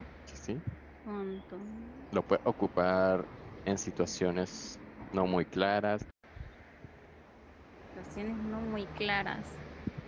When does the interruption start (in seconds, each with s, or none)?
none